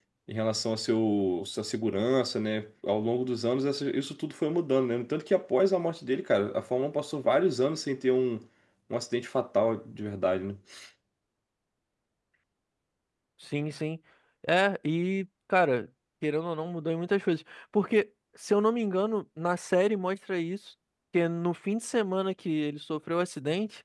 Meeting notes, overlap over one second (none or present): none